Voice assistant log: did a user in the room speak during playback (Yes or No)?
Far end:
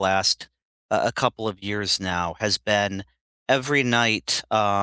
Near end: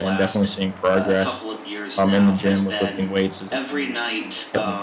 Yes